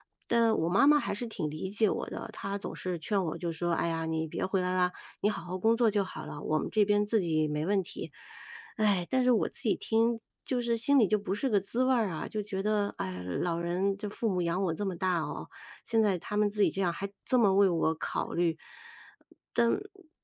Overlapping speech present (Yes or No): No